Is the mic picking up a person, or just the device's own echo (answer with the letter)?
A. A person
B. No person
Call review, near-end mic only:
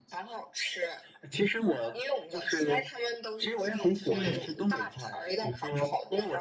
A